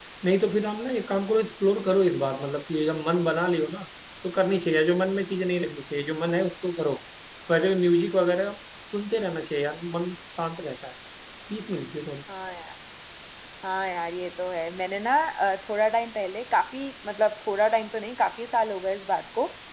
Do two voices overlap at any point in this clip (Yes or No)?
No